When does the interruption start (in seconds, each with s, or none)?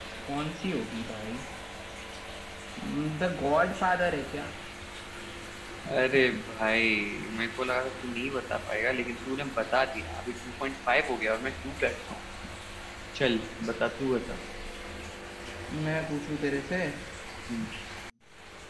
none